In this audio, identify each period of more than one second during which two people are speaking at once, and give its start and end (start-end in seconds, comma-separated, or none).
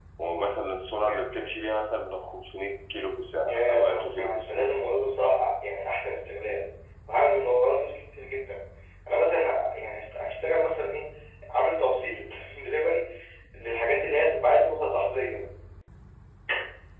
3.5-4.7